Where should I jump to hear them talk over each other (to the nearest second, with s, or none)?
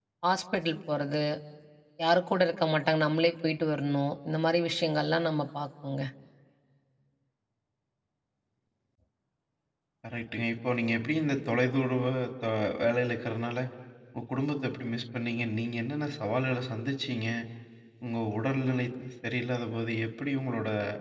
none